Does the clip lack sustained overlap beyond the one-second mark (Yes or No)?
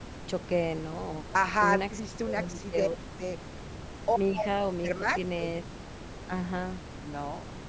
No